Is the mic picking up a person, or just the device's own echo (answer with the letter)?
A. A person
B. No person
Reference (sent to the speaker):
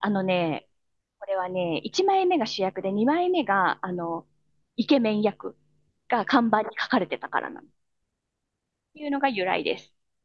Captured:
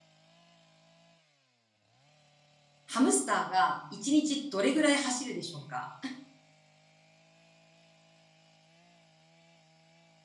A